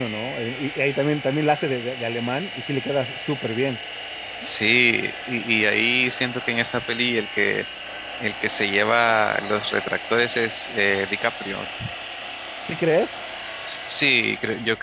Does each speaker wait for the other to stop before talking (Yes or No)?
Yes